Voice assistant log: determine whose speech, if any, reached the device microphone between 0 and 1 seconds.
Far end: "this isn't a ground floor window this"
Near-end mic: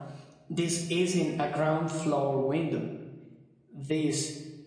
echo only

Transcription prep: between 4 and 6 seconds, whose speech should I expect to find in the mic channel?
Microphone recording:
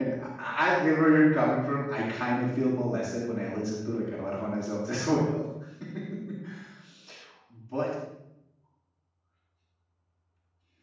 user only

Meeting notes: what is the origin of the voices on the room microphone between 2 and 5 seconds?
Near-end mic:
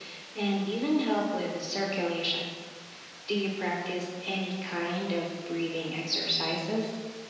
echo only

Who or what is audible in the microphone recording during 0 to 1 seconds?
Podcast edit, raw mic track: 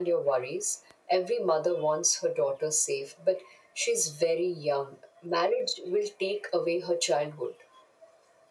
echo only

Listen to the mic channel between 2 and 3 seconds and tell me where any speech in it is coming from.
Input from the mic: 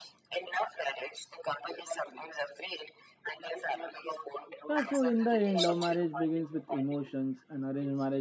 echo only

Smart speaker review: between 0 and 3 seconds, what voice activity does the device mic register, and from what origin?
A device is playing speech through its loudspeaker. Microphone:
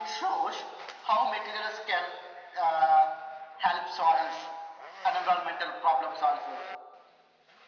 echo only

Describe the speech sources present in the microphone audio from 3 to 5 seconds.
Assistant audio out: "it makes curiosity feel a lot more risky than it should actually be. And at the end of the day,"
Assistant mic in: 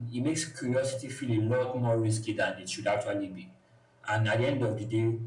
echo only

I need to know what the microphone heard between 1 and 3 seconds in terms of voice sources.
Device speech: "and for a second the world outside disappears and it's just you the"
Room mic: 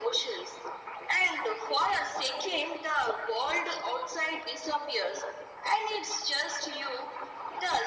echo only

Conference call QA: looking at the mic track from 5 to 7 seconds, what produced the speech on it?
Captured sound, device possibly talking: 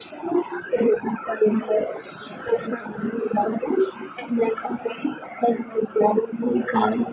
echo only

